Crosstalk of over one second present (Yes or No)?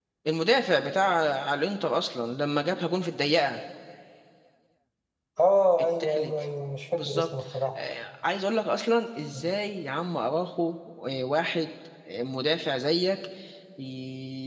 No